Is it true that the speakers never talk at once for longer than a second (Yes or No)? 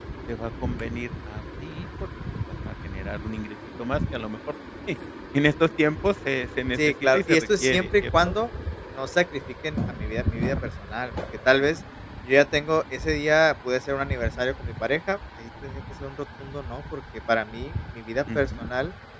No